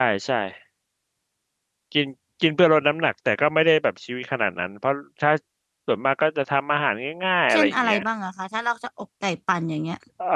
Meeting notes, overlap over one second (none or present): none